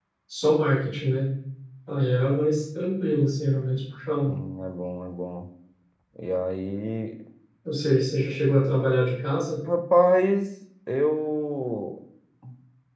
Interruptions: none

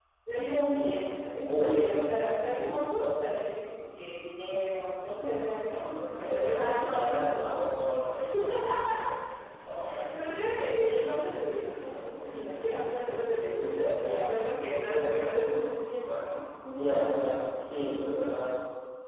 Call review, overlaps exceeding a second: present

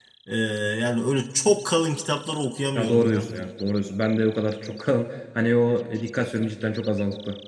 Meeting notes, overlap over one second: none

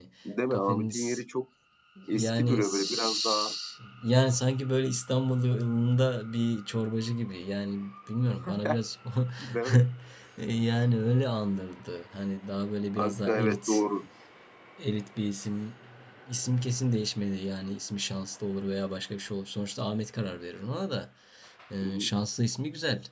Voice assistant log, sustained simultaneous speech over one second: present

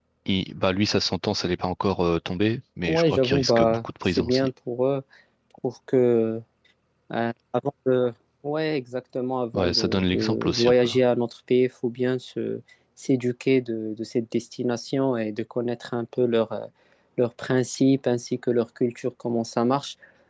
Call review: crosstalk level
present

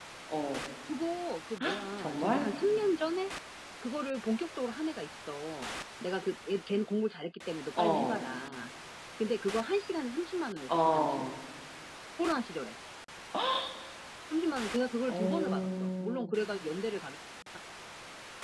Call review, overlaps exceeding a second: present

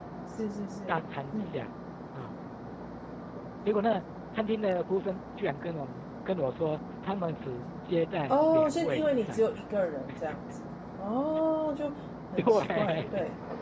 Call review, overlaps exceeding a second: present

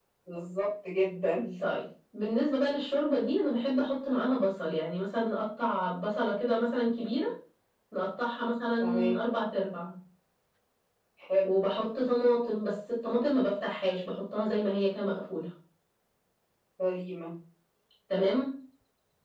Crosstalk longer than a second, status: none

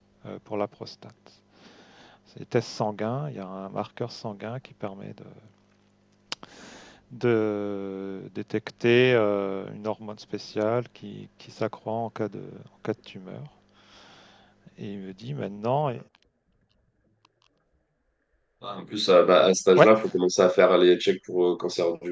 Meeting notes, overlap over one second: none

